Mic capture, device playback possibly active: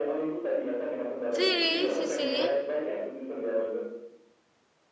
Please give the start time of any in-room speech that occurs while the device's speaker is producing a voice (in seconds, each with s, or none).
1.3 s